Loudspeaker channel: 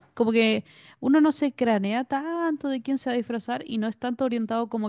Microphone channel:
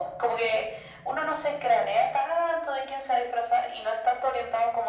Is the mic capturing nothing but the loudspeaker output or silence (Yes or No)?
Yes